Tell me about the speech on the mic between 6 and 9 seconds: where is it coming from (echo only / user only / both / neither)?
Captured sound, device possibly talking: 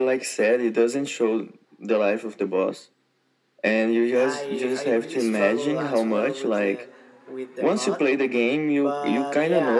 both